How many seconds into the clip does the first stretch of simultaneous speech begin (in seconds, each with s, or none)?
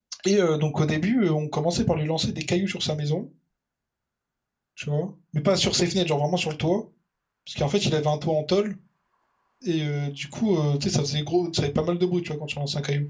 none